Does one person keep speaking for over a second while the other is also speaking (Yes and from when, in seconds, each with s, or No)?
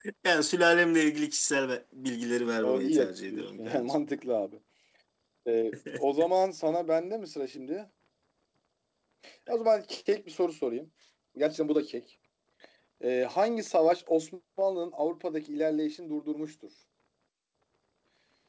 Yes, from 2.6 s